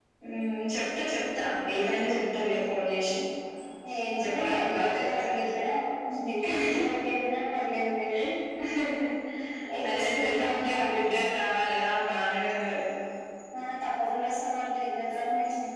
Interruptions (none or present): present